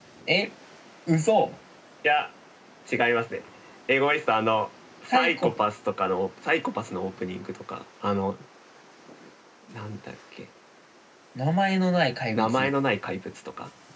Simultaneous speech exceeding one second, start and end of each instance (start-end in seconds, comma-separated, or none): none